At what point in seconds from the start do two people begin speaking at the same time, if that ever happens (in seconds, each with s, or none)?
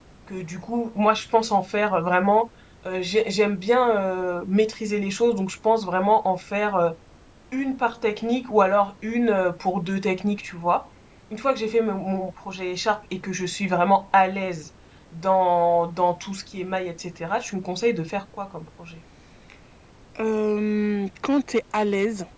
none